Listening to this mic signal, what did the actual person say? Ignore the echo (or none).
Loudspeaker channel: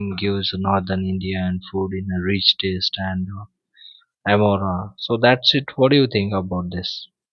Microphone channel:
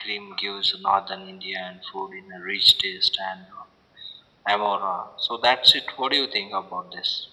none